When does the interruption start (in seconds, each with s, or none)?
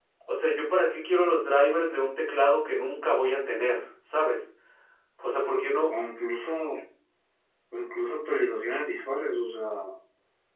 none